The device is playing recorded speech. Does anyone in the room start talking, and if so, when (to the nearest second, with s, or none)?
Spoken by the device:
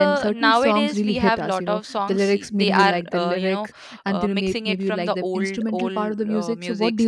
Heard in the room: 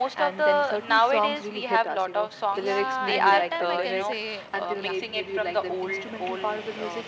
3 s